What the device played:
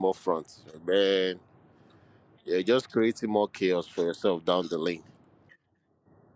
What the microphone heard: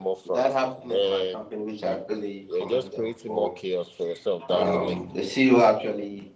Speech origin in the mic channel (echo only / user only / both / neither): both